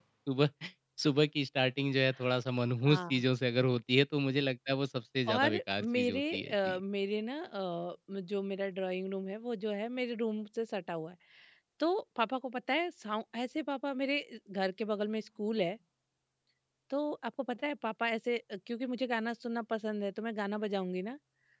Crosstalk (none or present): present